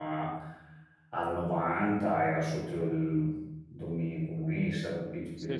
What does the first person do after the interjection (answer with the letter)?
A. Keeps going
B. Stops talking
B